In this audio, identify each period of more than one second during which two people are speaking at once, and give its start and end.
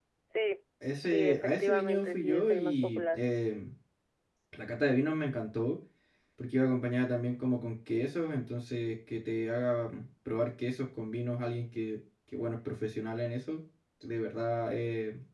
1.0-3.2

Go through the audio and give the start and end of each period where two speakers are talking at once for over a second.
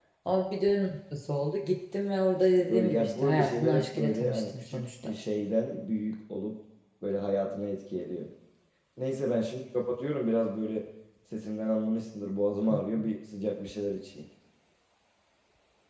2.6-5.1

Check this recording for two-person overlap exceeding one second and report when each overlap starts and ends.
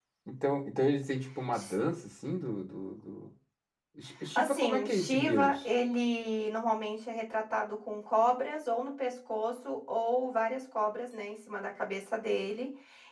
4.3-5.7

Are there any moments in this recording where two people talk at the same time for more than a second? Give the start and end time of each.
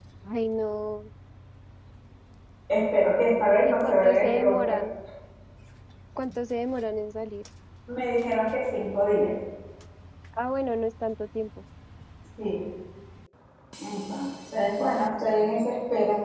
3.3-4.8

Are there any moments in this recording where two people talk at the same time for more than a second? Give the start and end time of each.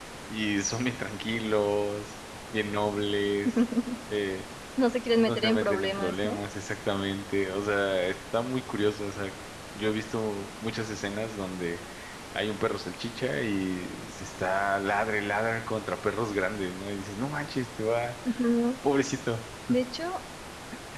5.2-6.4

